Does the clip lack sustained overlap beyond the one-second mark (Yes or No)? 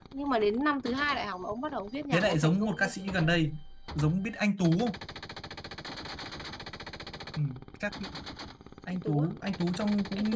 No